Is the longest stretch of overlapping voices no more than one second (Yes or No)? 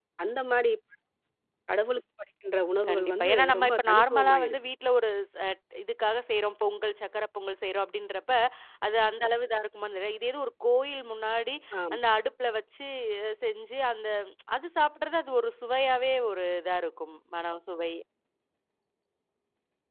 No